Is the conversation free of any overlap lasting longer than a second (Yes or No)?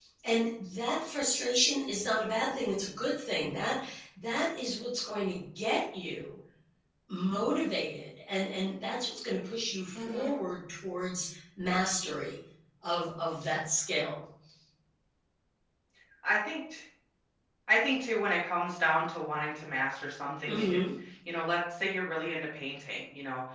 Yes